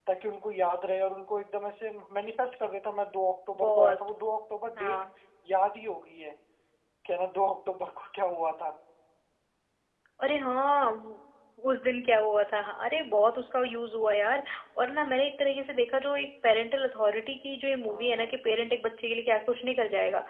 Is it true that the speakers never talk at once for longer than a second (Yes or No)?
Yes